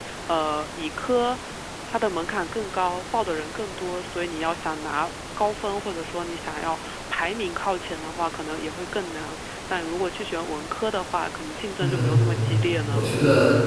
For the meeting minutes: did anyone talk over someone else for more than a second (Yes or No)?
Yes